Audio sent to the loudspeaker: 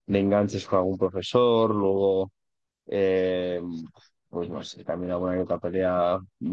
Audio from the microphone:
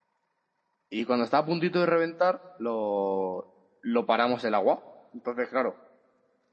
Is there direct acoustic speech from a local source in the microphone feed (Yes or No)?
Yes